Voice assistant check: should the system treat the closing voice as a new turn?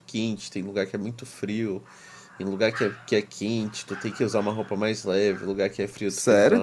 Yes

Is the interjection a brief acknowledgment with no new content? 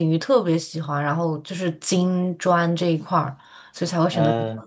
No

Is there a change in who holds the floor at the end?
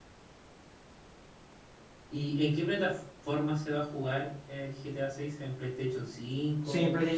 Yes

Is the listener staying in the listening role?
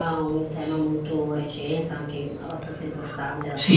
No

